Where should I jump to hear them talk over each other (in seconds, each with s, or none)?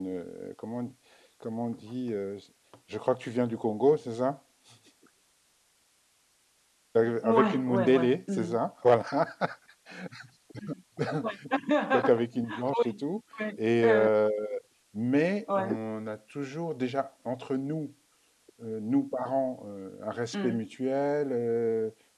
7.2 s